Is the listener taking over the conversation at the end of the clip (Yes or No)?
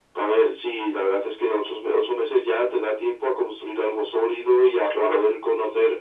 No